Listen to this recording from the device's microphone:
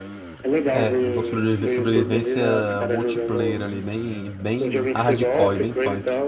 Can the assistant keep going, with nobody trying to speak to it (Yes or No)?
No